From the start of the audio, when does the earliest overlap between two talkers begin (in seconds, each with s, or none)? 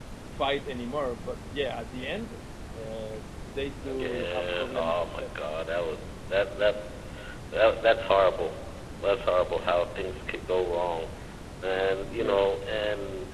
3.8 s